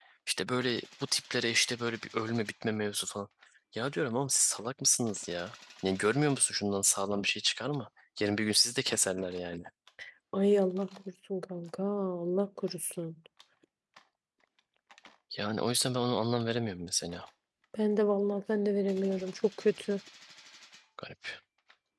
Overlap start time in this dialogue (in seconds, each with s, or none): none